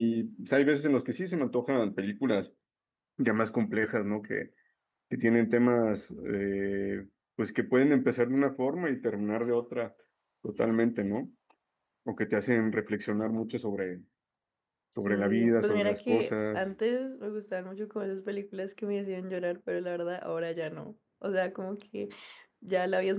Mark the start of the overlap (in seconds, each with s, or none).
15.1 s